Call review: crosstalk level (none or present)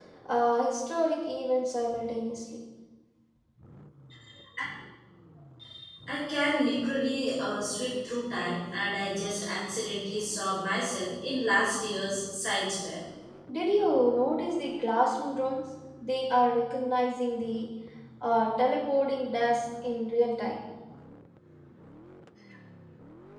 none